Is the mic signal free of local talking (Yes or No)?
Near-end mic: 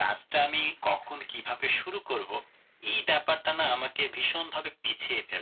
Yes